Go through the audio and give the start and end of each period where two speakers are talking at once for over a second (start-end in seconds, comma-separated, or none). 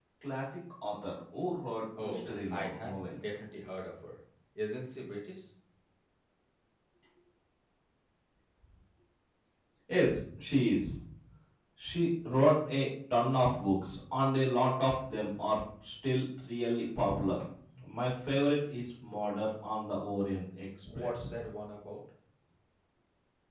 2.0-3.4